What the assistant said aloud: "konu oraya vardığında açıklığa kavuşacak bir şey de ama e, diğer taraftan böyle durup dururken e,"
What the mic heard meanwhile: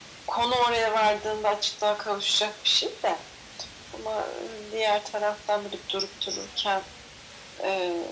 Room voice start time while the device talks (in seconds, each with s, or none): none